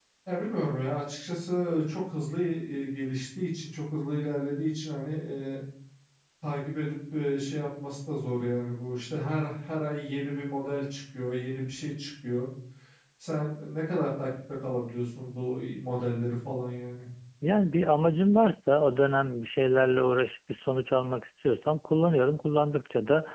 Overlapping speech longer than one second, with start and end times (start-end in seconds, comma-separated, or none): none